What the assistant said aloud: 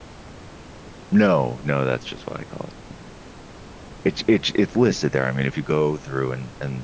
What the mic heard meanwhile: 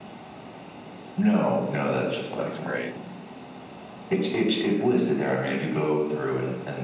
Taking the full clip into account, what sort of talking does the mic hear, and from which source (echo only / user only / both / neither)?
both